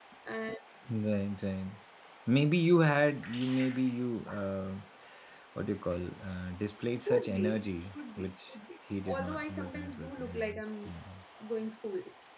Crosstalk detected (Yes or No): Yes